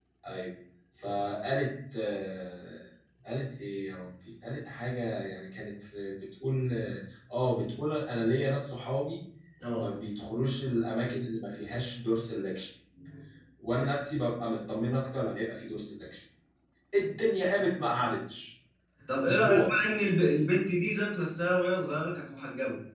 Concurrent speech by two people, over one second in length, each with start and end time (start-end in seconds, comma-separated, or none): none